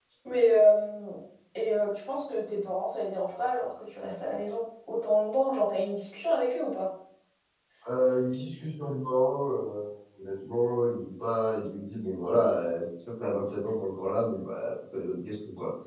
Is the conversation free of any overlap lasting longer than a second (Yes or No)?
Yes